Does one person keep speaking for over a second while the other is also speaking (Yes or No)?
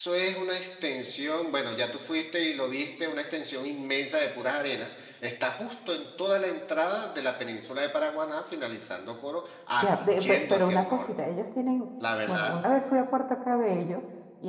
Yes